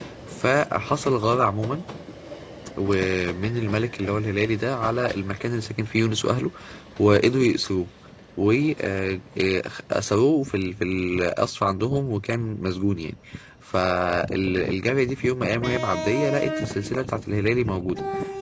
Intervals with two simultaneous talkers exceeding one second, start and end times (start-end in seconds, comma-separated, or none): none